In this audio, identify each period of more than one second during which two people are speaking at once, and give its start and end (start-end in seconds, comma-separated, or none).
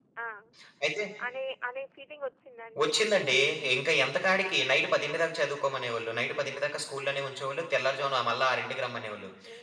none